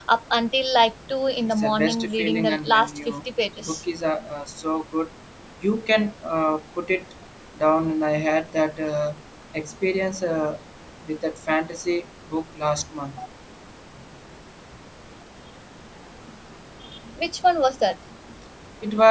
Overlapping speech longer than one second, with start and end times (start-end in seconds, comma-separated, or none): 1.4-3.1